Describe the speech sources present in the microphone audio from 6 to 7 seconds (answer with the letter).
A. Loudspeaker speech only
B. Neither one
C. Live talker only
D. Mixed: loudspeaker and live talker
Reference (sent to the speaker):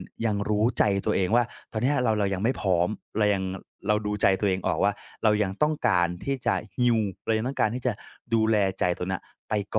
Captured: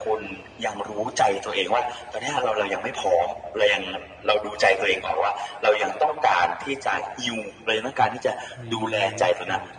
A